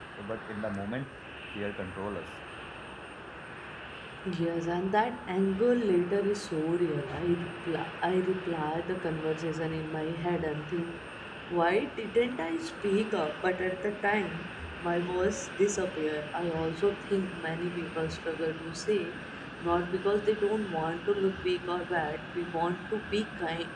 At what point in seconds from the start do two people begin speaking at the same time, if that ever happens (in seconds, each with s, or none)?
none